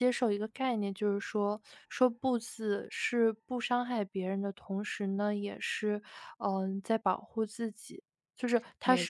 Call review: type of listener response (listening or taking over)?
taking over